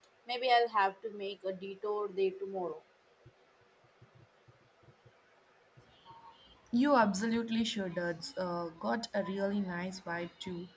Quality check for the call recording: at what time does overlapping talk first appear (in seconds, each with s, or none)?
none